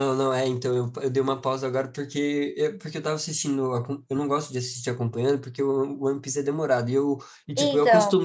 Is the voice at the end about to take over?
No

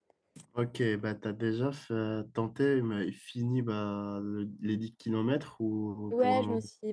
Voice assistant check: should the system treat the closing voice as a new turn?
Yes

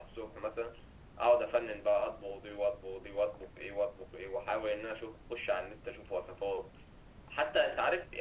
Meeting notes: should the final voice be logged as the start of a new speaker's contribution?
No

